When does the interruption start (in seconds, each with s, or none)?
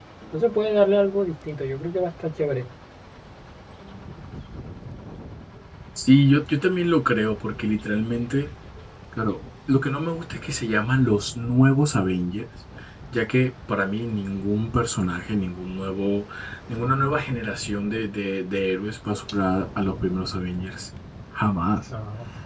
none